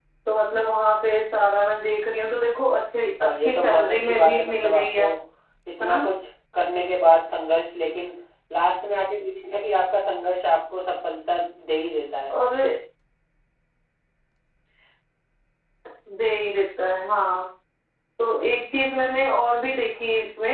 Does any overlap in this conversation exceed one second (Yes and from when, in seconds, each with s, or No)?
Yes, from 3.2 s